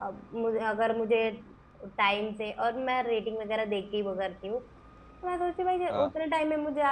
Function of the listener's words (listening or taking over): listening